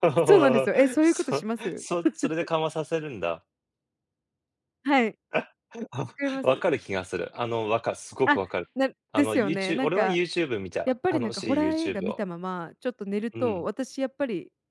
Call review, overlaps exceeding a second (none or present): present